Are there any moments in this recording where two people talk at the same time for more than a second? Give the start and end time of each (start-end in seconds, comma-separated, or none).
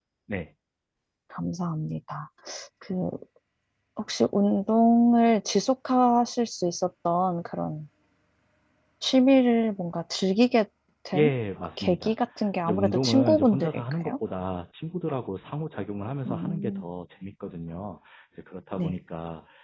12.6-14.1